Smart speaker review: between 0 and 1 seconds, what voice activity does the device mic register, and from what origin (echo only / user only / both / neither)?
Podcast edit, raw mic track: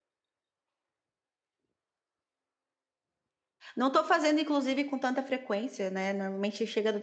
neither